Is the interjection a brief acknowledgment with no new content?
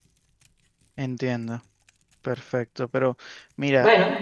Yes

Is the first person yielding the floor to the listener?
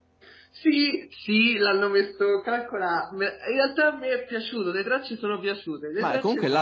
Yes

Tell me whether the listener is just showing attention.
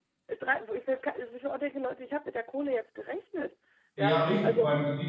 No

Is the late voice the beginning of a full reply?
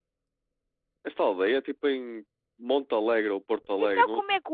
Yes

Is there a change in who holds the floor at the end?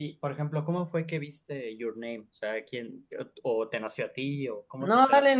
Yes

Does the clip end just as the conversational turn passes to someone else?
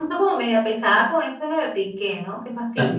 Yes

